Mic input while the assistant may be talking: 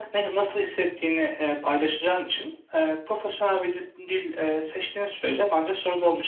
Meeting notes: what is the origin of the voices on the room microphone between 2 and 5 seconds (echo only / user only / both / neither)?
echo only